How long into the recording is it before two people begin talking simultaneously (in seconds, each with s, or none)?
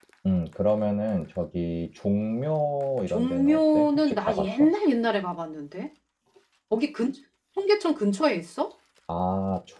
3.1 s